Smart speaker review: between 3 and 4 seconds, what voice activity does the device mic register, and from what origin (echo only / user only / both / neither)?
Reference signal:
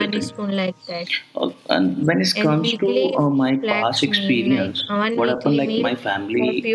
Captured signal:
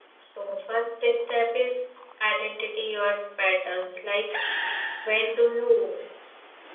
user only